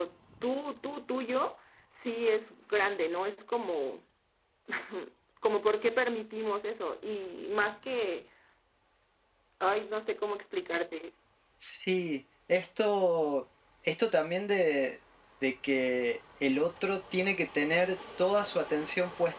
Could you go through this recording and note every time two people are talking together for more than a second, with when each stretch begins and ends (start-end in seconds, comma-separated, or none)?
none